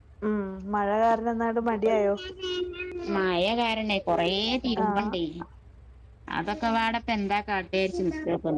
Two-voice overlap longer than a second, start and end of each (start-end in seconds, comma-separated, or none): none